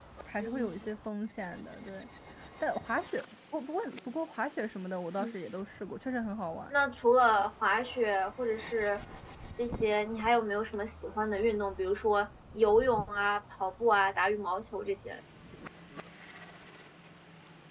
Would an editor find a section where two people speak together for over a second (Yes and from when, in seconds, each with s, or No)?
No